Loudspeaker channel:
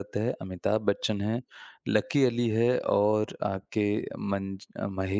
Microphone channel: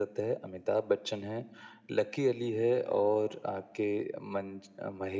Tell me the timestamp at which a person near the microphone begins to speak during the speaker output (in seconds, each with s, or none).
none